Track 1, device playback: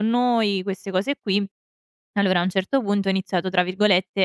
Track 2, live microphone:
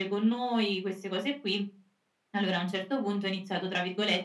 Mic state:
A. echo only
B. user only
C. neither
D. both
A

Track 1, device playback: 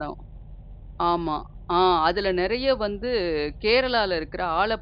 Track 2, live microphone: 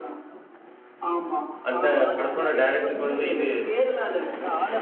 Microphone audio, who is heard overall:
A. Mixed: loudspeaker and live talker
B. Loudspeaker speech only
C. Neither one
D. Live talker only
A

